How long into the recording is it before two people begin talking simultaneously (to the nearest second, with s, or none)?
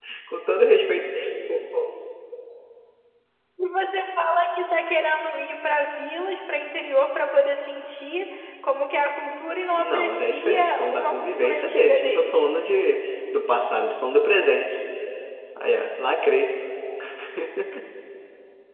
10 s